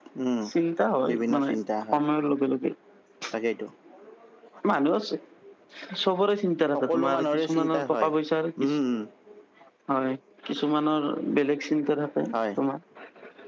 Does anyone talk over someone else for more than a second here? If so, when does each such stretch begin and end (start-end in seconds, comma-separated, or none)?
6.7-8.1